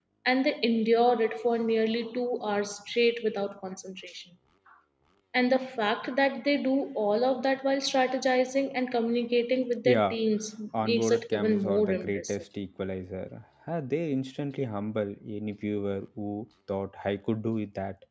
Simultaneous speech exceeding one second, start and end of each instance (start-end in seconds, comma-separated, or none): 10.8-12.4